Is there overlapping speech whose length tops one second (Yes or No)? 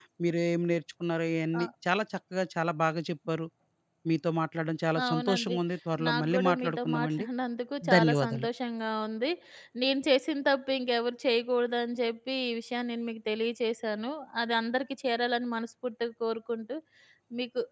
Yes